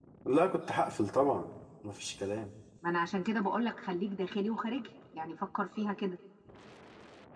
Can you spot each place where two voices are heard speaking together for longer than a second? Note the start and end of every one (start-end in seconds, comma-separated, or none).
none